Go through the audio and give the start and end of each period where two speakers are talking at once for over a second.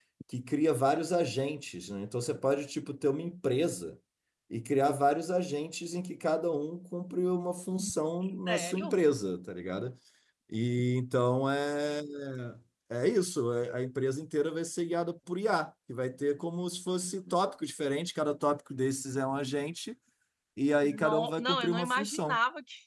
20.8-22.4

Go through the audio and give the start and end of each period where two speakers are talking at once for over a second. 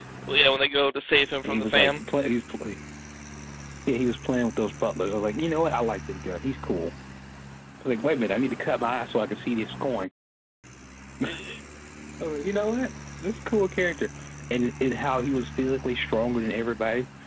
none

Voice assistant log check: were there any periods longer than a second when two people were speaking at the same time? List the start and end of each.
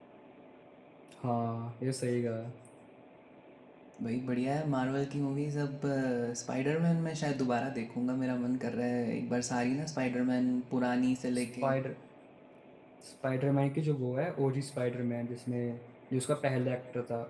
none

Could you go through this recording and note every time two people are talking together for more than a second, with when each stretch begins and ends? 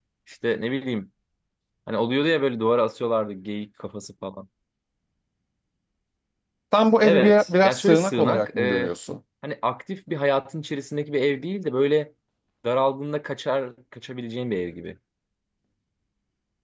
7.0-8.9

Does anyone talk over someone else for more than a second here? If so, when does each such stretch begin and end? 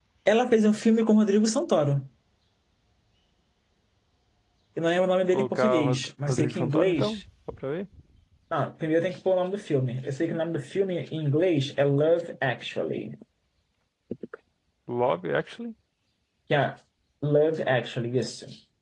5.3-7.2

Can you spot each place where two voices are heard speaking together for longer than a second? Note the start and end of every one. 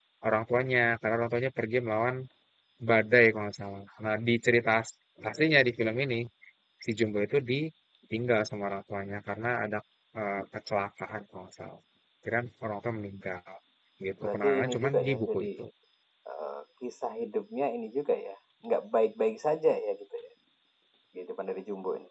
14.2-15.5

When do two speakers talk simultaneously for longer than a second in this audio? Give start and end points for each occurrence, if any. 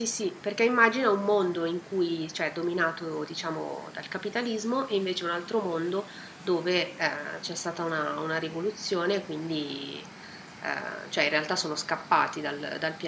none

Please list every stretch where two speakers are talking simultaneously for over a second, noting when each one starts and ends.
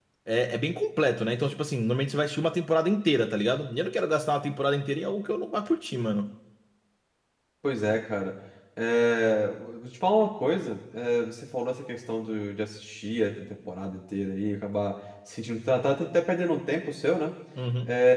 none

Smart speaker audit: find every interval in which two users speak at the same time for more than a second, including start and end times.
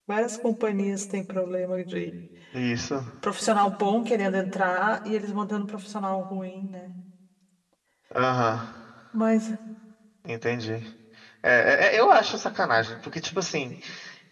none

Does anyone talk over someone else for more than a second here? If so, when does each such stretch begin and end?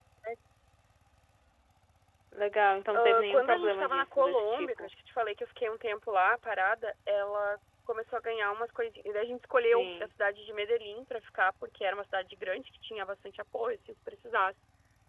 2.9-4.9

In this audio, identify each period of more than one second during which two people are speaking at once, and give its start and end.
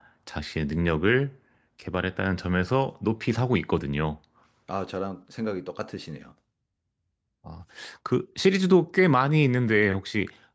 none

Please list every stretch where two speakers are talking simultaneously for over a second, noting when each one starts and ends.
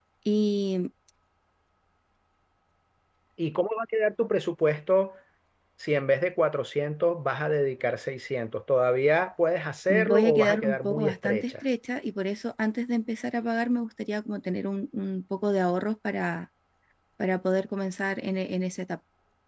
9.9-11.5

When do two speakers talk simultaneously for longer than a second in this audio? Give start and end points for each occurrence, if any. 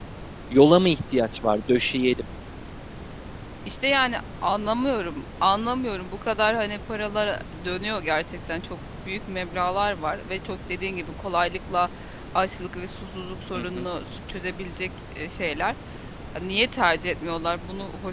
none

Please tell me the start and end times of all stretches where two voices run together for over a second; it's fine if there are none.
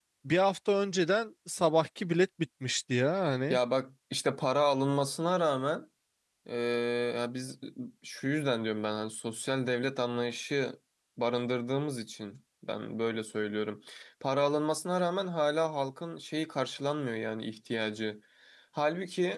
none

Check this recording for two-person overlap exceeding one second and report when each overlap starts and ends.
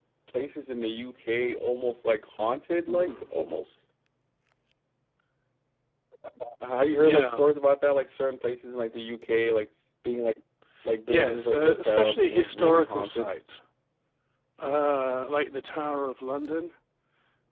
11.1-13.3

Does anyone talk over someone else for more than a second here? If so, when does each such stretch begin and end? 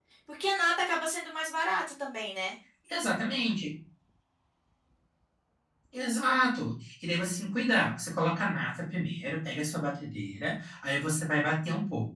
none

